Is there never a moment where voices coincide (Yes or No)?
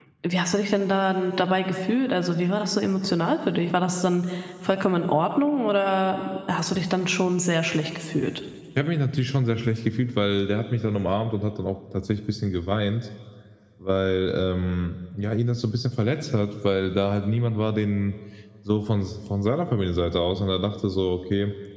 Yes